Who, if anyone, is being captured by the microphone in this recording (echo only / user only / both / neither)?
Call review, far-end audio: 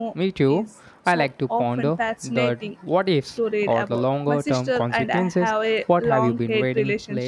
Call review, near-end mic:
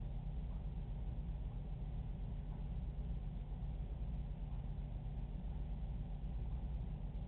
neither